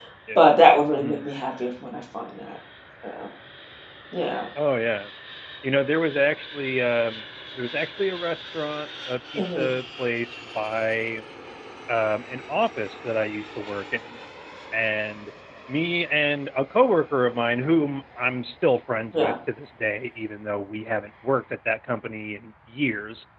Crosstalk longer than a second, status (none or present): none